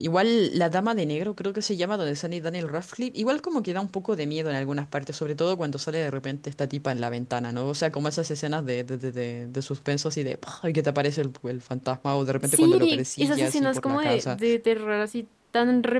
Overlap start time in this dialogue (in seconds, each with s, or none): 12.4 s